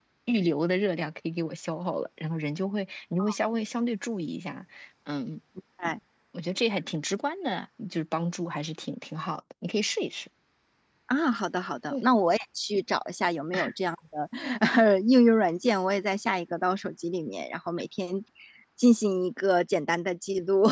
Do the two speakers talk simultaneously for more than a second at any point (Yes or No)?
No